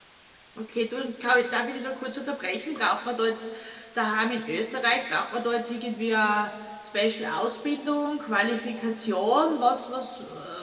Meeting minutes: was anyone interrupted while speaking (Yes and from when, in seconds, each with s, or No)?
No